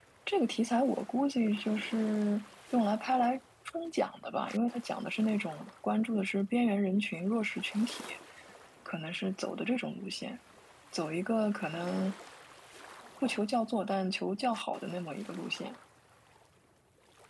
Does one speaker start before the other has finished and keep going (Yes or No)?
No